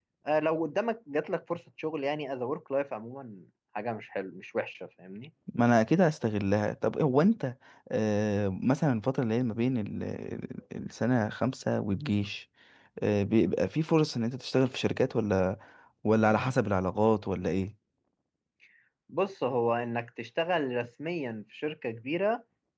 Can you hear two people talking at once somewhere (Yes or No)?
No